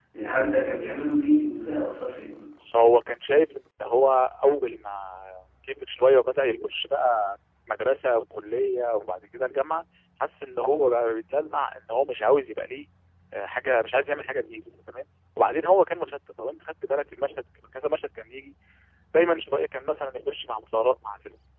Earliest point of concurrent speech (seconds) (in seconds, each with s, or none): none